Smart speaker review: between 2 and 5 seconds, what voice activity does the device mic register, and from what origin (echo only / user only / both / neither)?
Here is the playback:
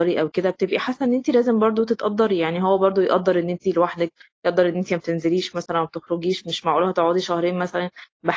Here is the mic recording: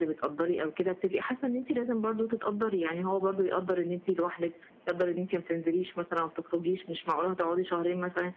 echo only